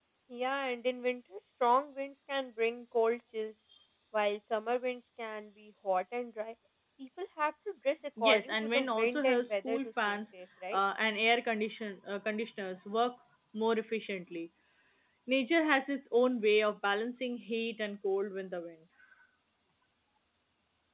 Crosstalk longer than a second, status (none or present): present